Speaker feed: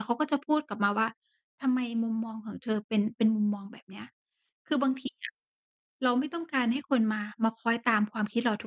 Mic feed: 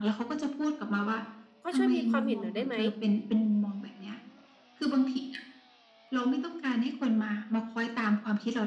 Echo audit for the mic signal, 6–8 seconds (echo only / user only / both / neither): echo only